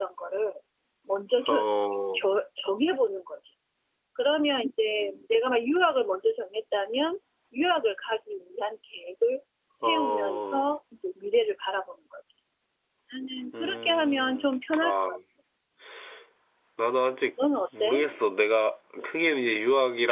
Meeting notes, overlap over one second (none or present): present